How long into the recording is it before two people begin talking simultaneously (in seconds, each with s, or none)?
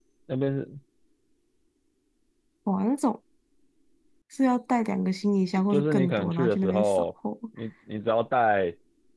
5.6 s